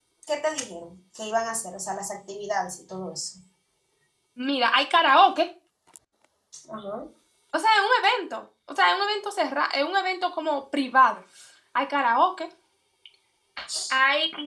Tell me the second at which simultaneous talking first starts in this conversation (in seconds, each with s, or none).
none